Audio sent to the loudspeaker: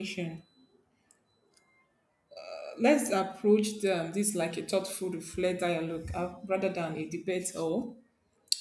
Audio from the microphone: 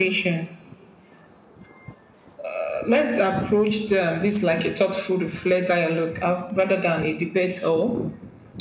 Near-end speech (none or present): none